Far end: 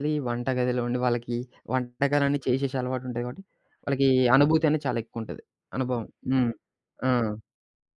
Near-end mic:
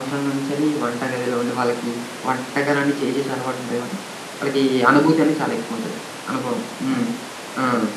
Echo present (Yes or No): Yes